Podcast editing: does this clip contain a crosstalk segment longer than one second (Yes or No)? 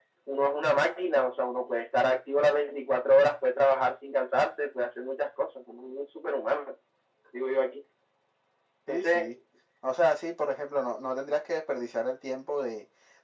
No